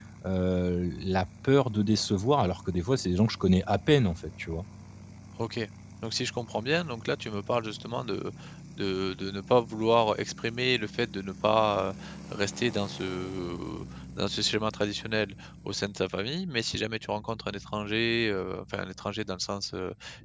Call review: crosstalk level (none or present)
none